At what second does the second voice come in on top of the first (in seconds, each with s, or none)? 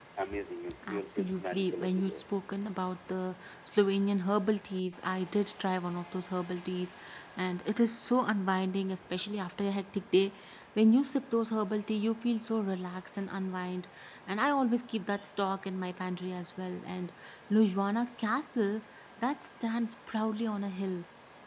0.9 s